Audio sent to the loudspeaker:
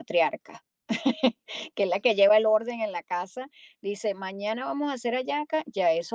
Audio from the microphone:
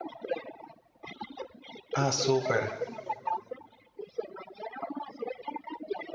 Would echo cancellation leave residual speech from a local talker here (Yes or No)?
Yes